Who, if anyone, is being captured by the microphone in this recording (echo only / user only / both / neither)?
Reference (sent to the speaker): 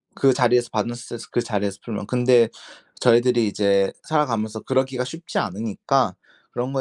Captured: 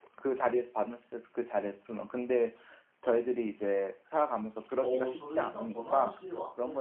both